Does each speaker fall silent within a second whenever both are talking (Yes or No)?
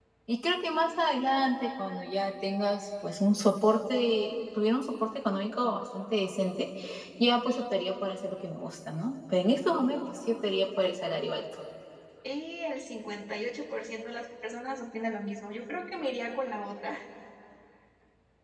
Yes